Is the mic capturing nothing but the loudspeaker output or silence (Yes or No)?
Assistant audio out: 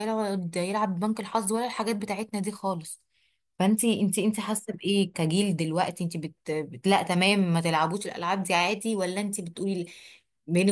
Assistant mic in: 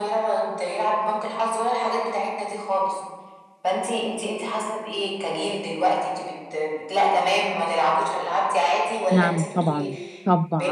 No